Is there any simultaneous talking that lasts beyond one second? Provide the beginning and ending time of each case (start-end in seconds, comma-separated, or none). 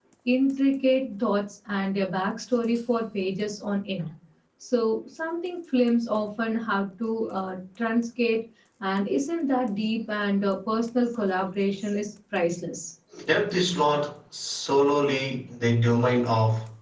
none